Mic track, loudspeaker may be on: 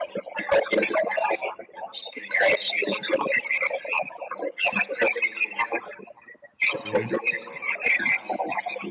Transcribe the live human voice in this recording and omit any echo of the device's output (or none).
อืม